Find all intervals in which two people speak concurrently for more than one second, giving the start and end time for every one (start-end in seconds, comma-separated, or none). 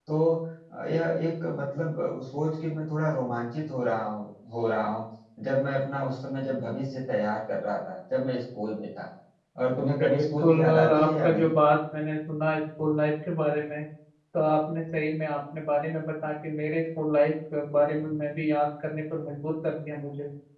10.0-11.6